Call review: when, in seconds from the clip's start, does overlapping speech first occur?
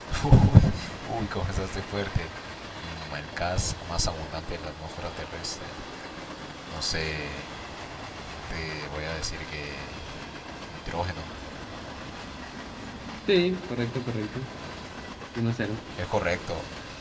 none

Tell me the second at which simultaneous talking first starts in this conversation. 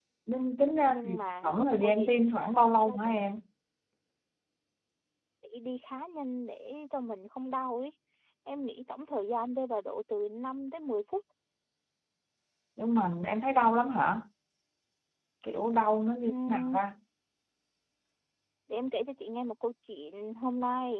0.8 s

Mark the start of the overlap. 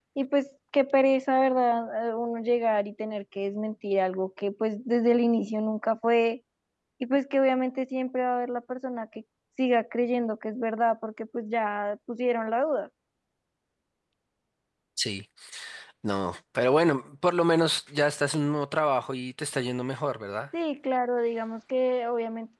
none

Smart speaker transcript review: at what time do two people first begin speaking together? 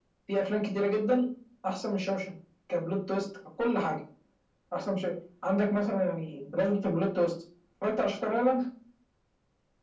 none

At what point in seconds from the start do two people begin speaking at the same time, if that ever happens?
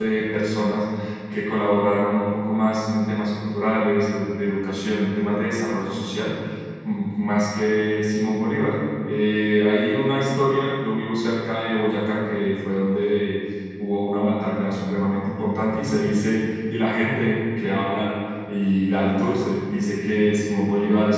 none

